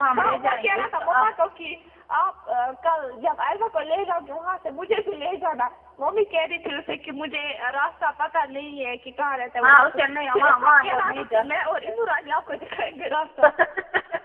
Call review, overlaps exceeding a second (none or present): present